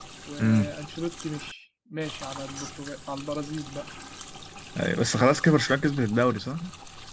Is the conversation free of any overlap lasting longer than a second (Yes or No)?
Yes